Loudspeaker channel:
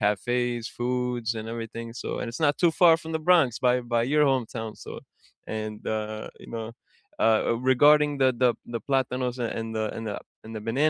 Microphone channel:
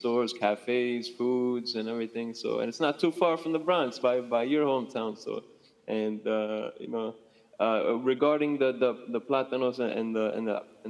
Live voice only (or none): none